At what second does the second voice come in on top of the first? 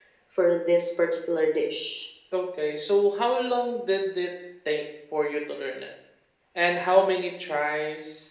none

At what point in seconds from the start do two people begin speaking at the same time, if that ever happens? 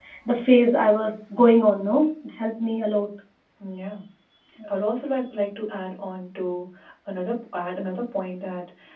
none

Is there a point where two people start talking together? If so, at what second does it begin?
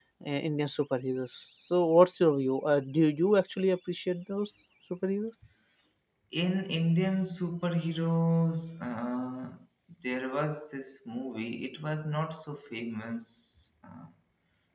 none

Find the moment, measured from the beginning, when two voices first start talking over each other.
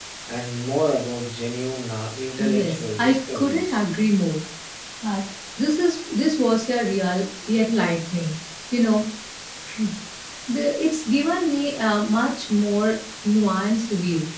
2.3 s

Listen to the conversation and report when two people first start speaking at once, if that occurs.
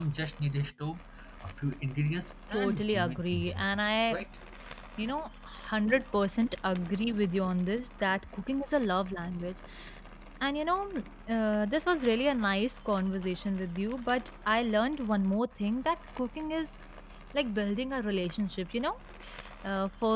2.5 s

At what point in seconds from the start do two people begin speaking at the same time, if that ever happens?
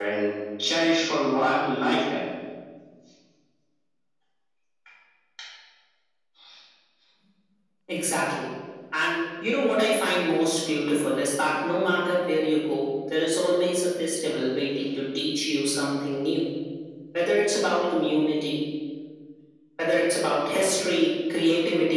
none

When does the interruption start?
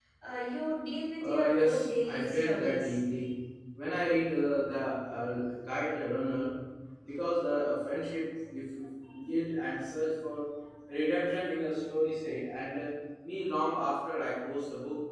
1.2 s

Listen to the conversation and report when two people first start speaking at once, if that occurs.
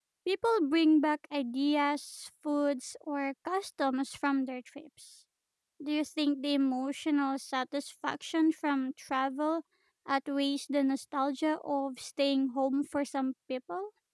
none

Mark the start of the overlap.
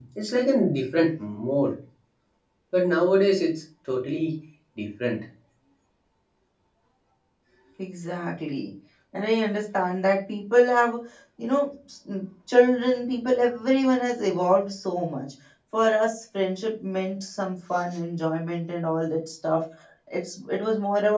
none

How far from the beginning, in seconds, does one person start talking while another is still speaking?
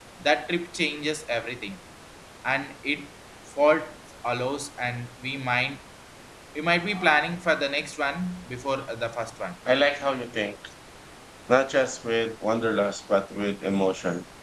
none

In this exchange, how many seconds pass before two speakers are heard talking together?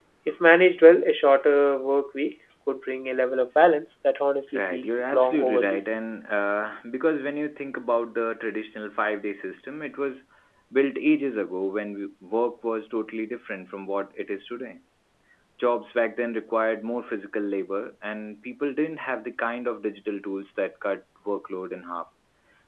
4.5 s

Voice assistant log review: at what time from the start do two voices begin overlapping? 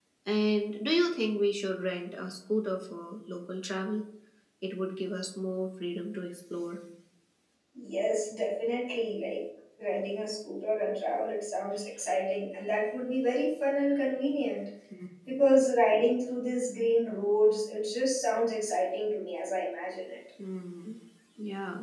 none

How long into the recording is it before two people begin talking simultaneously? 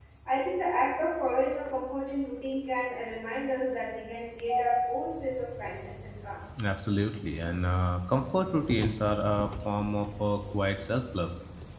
none

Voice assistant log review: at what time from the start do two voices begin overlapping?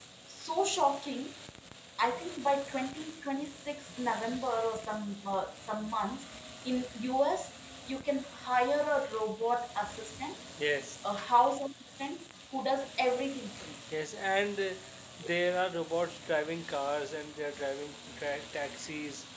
none

